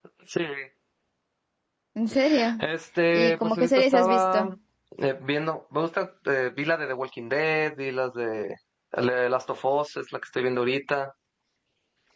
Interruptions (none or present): present